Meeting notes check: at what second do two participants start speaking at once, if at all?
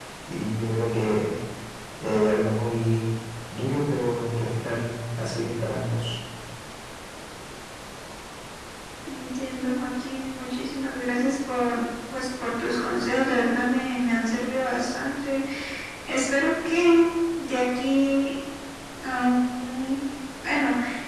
none

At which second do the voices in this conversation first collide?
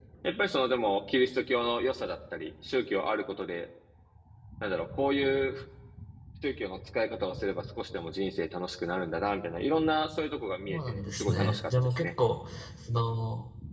10.7 s

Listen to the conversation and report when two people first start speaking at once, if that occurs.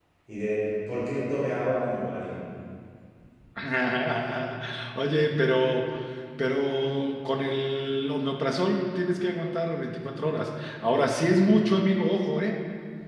none

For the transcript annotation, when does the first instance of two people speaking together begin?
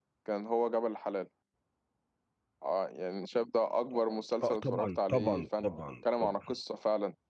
4.4 s

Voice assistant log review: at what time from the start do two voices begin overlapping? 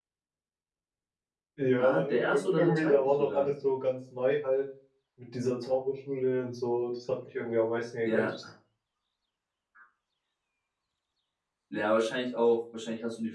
1.8 s

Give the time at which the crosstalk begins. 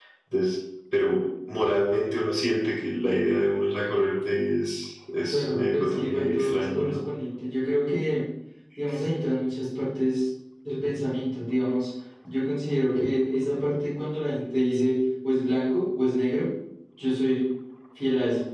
5.3 s

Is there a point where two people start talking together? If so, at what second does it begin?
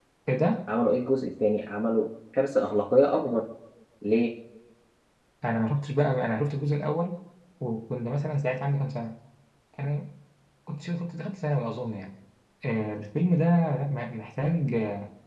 none

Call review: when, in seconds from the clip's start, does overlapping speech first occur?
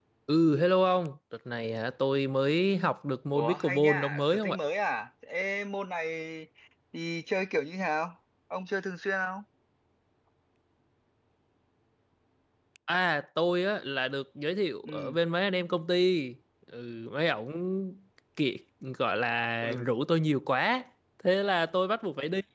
3.3 s

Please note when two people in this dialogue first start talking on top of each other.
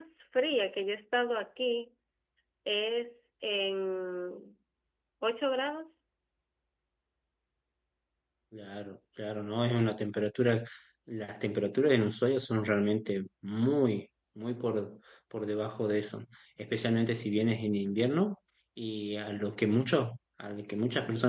none

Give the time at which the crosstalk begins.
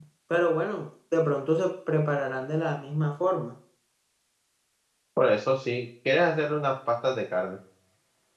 none

